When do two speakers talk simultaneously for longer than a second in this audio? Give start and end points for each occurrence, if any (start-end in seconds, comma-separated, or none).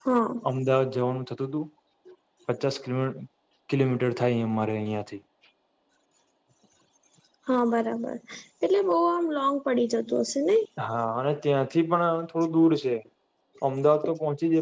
none